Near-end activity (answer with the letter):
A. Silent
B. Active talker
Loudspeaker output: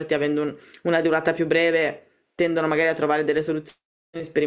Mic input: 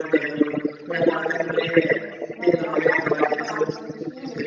B